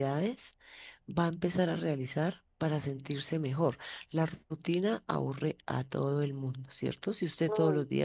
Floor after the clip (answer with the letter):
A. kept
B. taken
A